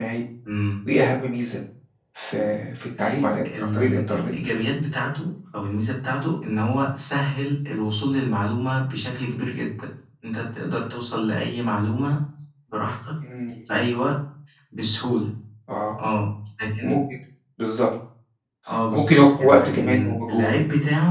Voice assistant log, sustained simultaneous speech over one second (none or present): present